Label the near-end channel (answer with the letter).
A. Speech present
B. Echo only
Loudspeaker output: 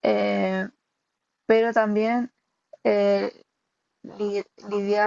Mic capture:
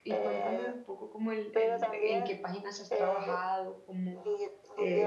A